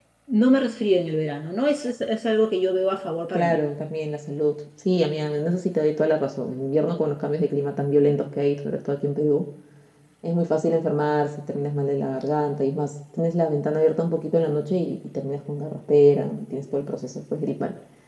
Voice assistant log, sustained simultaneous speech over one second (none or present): none